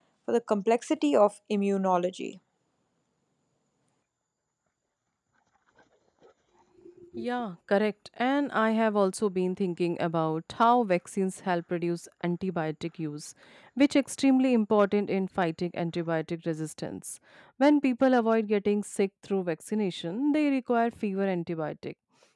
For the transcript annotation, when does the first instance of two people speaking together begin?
none

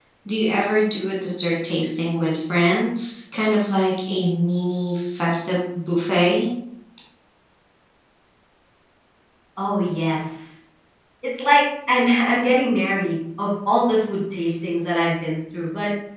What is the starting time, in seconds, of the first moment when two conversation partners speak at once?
none

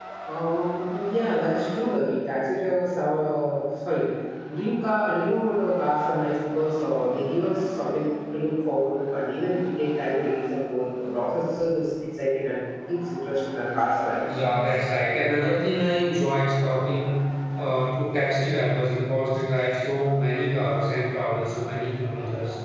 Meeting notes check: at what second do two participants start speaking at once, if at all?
none

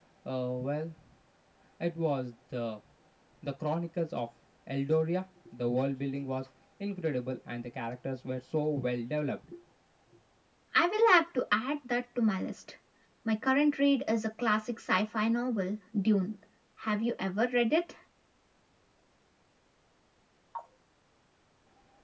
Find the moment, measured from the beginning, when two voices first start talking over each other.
none

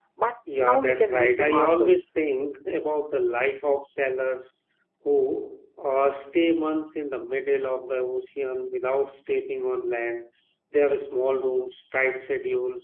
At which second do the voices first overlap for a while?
0.6 s

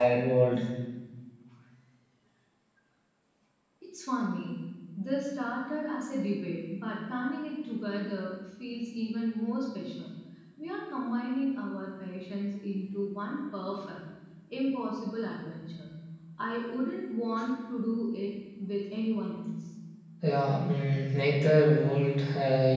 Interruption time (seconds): none

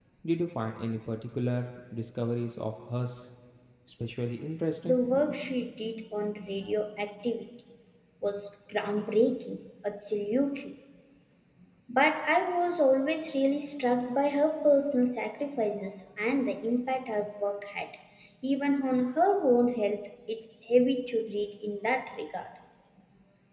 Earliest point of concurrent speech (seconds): none

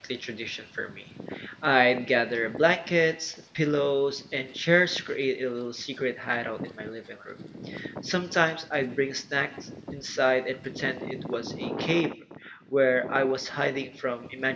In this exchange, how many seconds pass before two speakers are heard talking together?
none

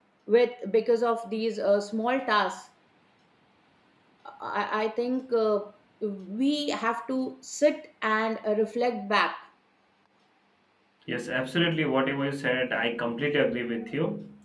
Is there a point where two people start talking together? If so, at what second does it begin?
none

